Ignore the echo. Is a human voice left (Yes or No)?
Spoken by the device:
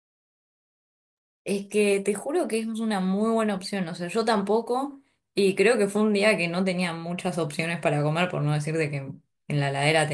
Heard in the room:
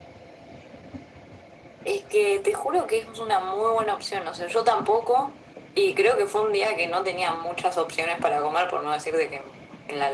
No